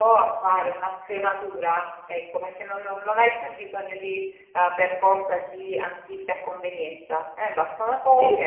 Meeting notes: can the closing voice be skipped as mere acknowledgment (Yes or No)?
Yes